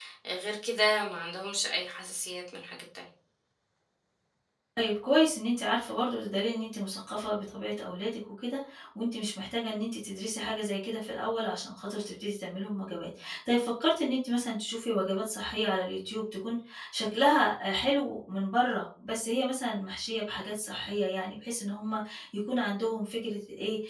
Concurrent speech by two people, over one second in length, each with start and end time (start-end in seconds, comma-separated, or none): none